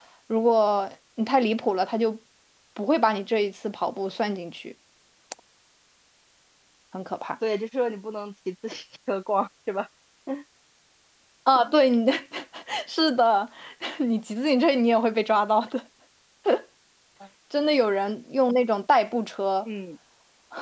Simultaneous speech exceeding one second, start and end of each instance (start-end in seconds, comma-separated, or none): none